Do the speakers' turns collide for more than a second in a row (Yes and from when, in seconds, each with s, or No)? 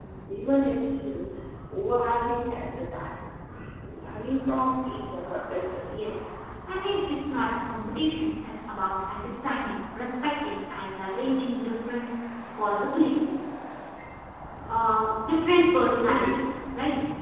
No